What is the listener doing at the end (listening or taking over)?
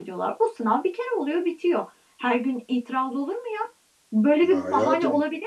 listening